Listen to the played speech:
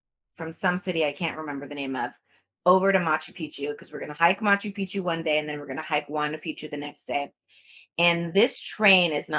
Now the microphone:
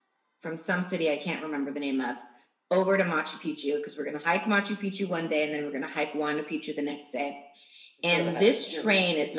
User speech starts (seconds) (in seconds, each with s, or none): 8.1 s